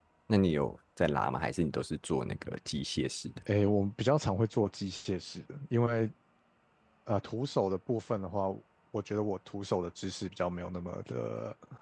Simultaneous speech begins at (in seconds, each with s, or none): none